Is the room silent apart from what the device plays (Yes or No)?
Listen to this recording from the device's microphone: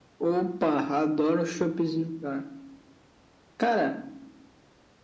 Yes